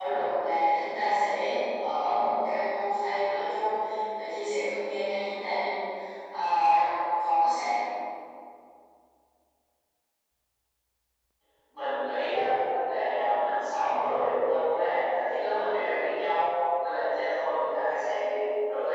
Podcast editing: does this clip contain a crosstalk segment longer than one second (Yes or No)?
No